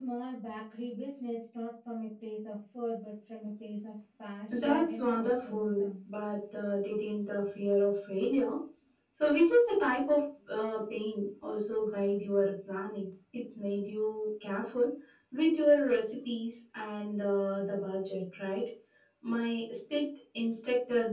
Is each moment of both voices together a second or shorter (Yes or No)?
No